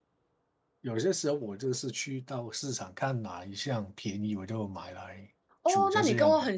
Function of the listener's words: taking over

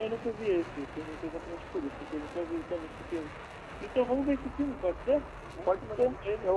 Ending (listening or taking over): taking over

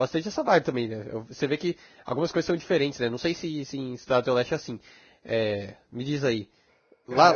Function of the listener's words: listening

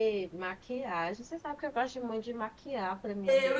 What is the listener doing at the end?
taking over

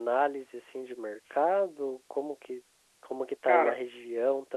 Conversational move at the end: listening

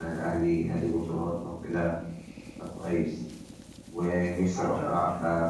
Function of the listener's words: listening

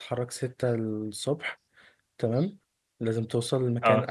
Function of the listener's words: listening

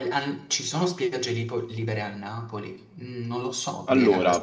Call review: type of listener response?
taking over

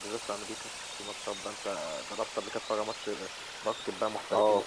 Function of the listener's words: taking over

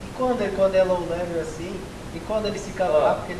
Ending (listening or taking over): listening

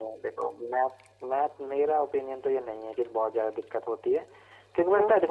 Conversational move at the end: listening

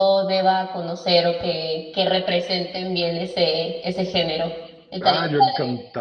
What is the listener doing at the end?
taking over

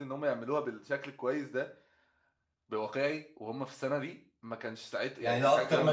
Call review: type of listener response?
taking over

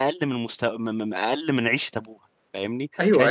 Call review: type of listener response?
taking over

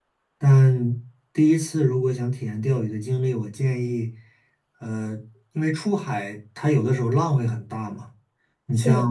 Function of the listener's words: listening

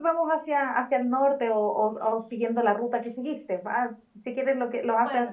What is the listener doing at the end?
listening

